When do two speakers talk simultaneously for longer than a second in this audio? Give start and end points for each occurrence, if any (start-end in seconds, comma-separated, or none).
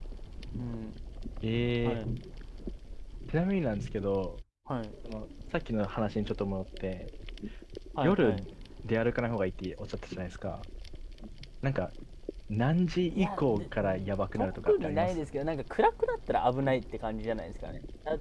13.1-15.1